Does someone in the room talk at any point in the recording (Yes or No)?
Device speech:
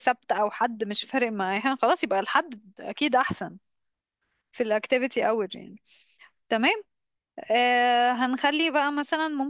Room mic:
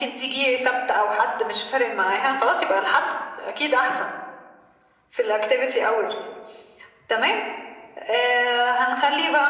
No